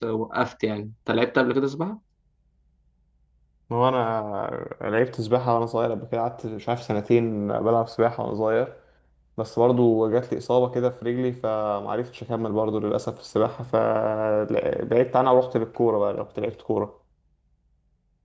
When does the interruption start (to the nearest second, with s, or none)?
none